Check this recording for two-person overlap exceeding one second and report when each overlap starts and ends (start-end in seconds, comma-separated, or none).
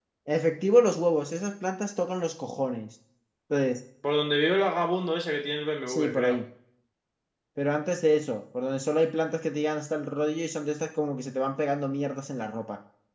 none